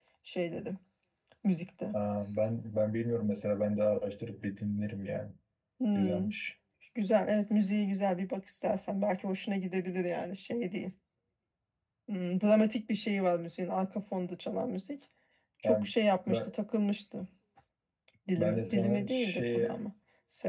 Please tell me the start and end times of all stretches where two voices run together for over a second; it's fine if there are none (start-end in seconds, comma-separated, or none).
18.4-19.9